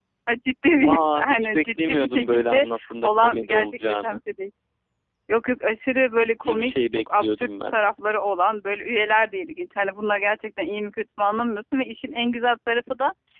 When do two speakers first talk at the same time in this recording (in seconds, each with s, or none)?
0.8 s